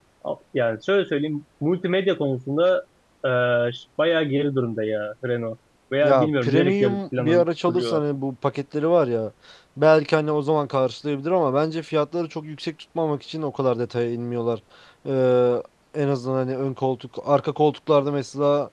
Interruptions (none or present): present